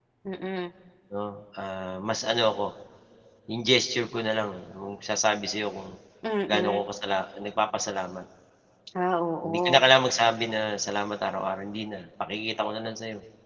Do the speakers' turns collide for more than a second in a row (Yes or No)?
No